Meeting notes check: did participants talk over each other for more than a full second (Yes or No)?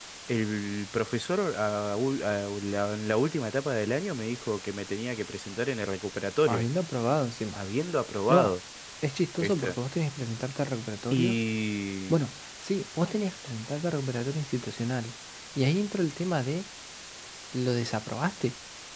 No